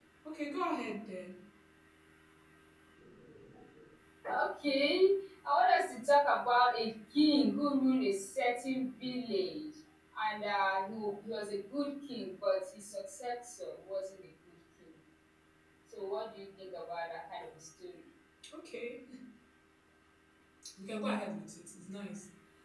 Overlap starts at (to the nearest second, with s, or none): none